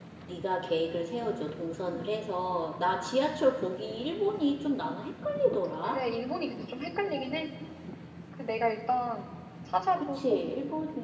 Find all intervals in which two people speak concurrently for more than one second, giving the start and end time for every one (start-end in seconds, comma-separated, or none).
none